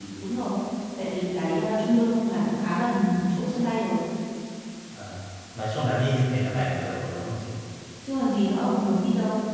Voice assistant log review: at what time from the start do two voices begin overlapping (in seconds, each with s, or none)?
none